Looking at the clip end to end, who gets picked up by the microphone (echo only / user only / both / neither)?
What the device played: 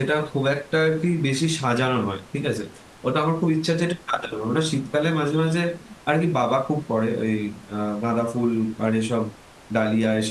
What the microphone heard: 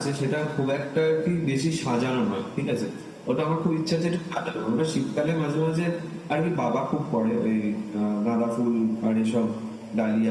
echo only